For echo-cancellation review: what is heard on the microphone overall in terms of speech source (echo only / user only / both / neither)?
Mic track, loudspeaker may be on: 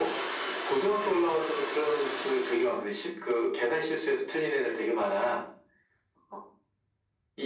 echo only